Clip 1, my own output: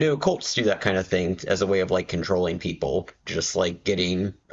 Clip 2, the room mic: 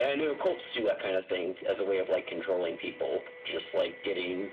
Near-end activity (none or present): none